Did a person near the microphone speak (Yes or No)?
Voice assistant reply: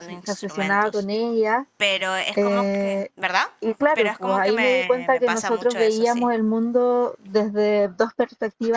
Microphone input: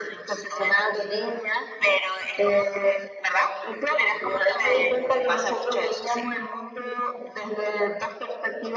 No